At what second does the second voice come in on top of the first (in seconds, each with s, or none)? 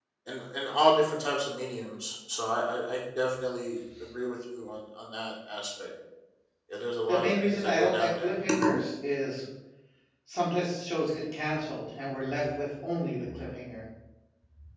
7.1 s